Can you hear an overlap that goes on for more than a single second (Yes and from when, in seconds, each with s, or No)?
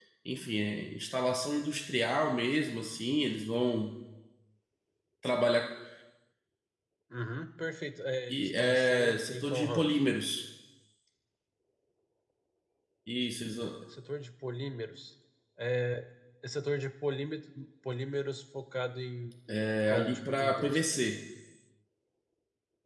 Yes, from 8.3 s